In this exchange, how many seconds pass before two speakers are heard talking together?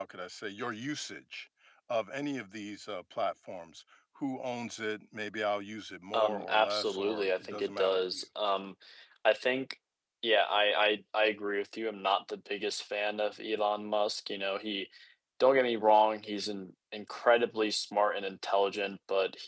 6 s

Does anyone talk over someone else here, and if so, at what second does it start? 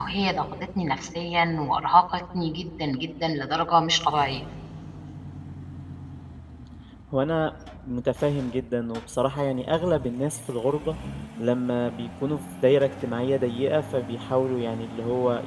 none

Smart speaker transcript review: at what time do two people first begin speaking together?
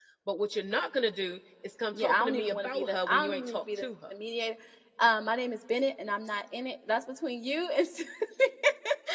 2 s

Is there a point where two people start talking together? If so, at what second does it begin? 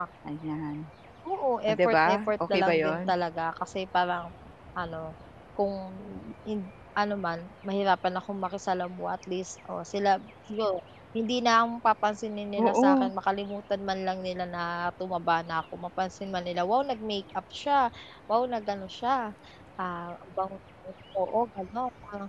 2 s

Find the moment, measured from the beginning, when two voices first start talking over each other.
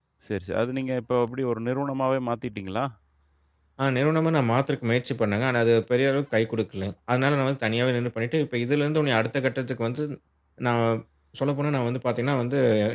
none

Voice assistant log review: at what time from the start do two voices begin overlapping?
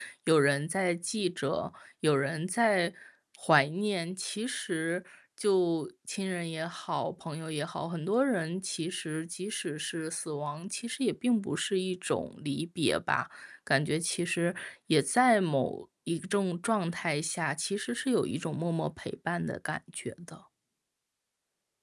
none

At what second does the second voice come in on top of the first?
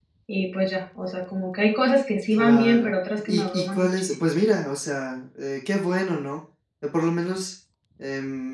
2 s

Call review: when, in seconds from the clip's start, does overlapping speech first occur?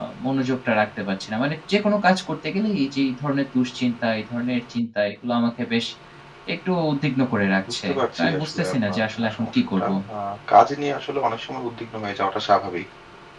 8 s

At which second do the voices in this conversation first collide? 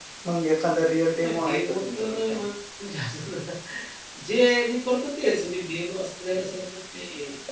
1 s

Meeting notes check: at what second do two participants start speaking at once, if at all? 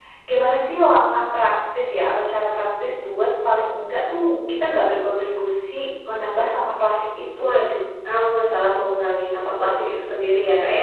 none

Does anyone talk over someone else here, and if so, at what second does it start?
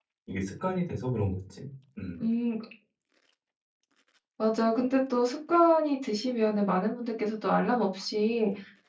none

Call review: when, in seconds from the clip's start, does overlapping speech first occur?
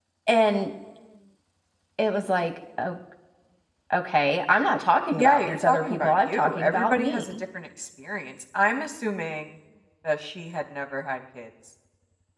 5 s

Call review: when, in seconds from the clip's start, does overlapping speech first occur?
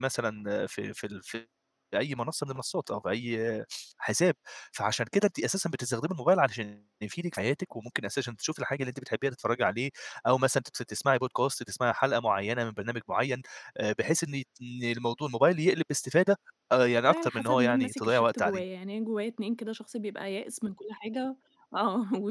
17 s

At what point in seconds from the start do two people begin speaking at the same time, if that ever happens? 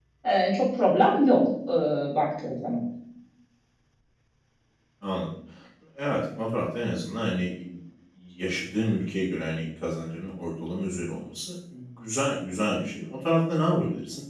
none

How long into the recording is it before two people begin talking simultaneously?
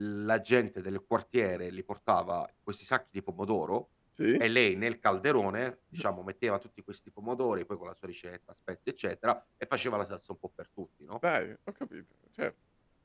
none

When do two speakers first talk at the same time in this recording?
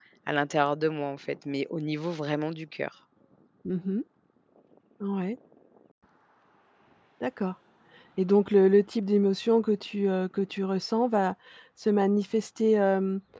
none

